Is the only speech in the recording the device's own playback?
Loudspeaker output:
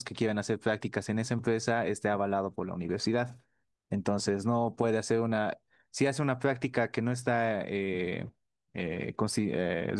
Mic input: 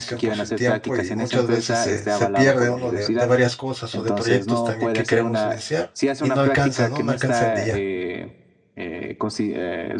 No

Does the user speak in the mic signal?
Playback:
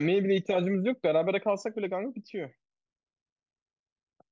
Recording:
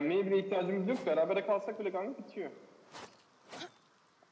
No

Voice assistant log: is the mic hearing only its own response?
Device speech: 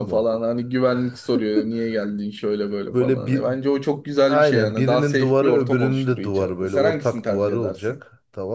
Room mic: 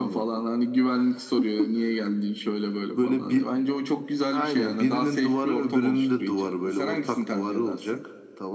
Yes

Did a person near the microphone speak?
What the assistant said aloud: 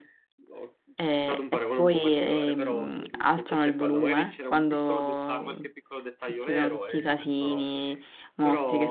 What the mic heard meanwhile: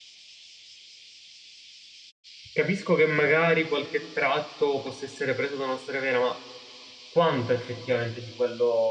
Yes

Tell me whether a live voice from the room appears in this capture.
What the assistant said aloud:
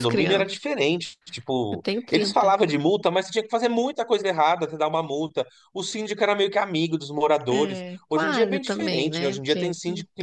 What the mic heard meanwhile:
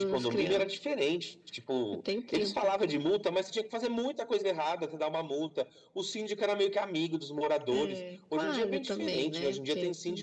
No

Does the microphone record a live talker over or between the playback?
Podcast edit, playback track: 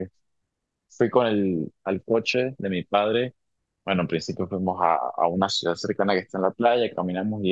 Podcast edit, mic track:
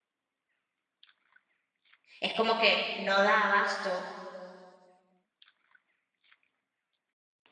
Yes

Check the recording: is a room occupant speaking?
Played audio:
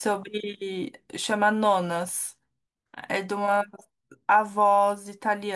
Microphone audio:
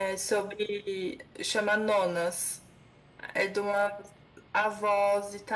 No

